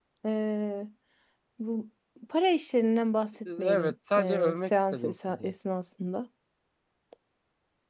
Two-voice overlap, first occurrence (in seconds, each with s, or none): 3.5 s